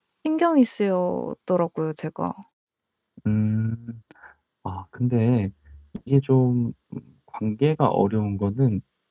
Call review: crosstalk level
none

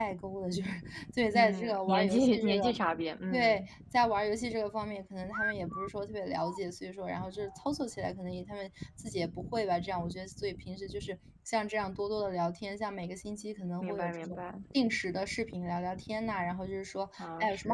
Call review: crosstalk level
present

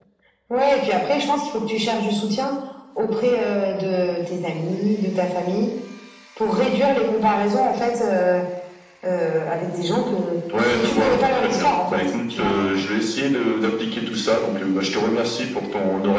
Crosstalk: present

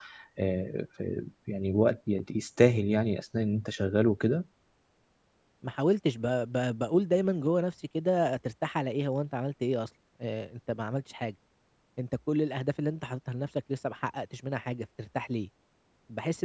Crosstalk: none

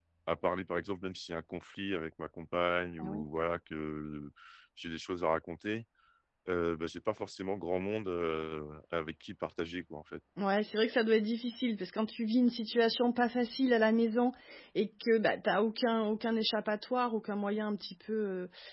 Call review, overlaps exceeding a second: none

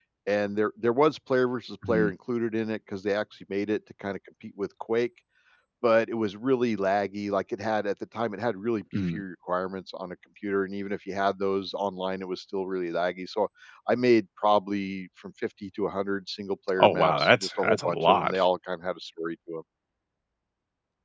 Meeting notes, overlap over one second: present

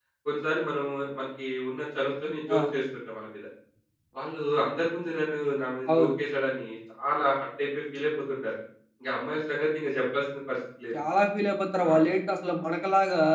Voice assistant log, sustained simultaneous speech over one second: none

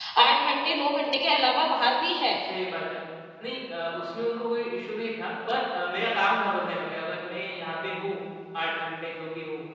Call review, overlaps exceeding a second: none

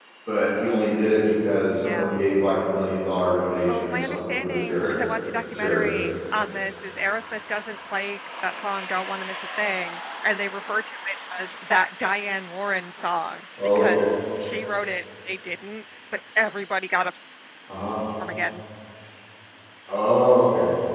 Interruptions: present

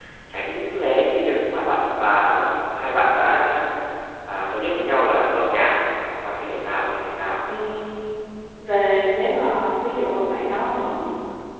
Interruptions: none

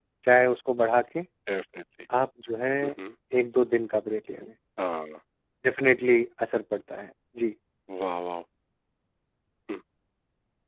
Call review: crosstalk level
none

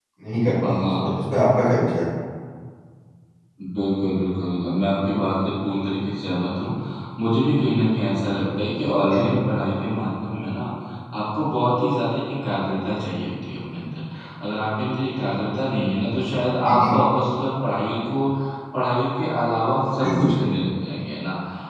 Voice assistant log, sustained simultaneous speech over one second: none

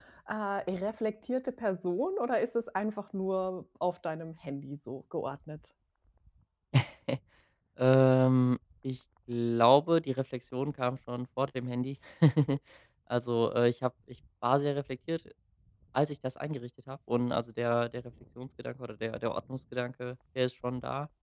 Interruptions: none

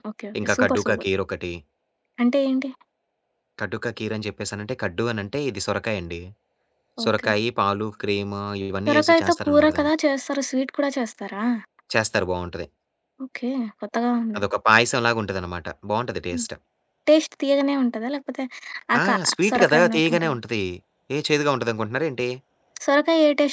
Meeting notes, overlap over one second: present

